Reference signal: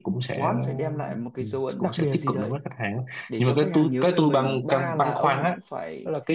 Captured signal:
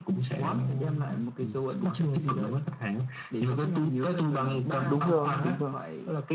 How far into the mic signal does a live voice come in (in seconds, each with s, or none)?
4.8 s